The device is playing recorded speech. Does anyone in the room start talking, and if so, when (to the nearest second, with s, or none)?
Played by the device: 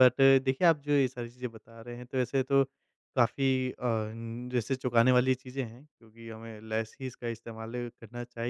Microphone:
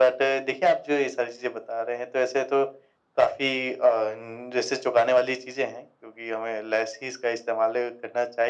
none